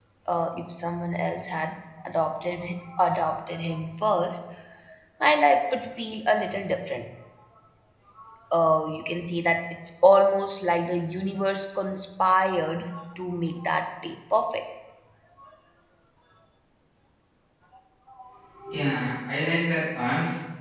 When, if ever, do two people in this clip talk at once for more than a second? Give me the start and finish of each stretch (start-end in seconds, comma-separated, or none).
none